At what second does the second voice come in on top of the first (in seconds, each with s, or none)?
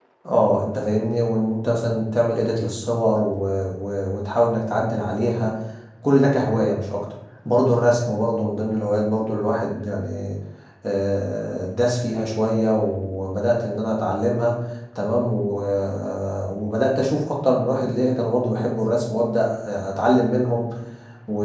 none